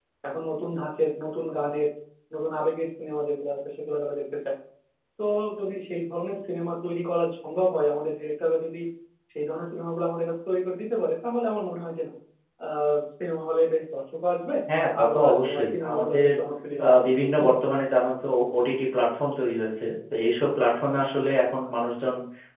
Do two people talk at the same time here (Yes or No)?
Yes